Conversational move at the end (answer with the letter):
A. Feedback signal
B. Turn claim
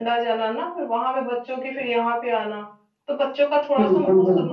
A